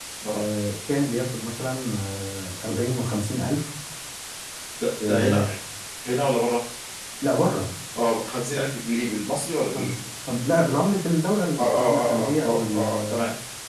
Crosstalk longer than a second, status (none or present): present